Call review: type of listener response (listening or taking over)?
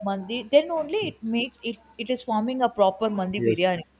taking over